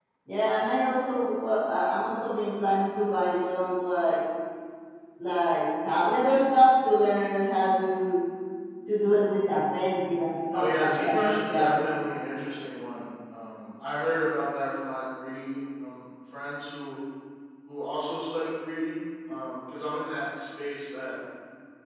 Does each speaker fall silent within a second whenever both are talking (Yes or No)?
No